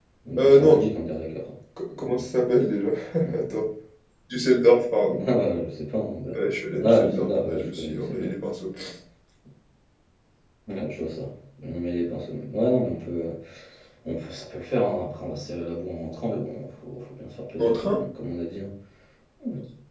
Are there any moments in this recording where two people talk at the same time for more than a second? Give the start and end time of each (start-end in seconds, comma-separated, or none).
6.8-8.3